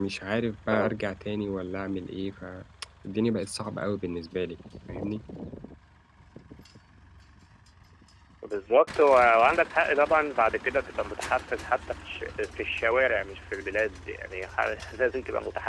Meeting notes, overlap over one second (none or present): none